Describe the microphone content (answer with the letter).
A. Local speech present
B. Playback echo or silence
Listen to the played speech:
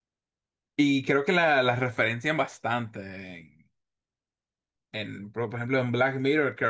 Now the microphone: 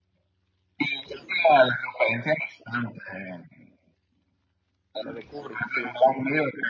A